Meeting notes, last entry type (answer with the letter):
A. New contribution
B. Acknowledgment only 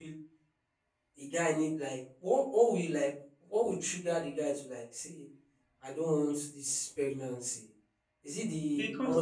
B